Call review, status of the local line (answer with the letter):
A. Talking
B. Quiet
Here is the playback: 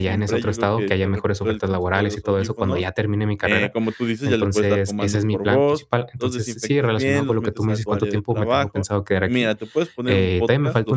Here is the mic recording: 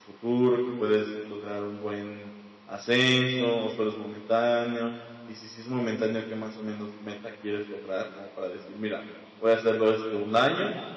A